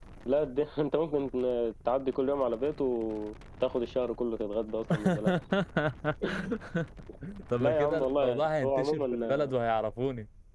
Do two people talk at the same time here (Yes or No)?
Yes